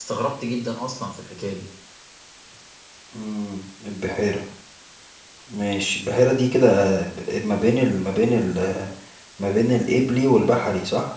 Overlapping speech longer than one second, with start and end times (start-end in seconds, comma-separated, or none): none